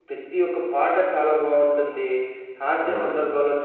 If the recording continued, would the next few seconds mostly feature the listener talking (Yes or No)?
No